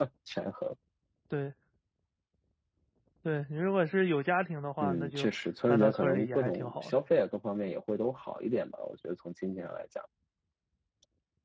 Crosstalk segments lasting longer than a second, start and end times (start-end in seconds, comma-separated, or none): 5.7-6.9